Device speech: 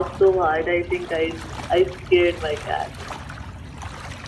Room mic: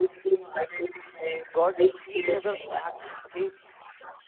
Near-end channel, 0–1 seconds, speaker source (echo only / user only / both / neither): echo only